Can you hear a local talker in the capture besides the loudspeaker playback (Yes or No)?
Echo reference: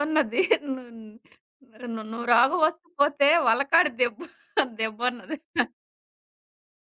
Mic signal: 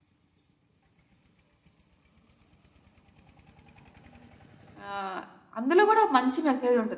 Yes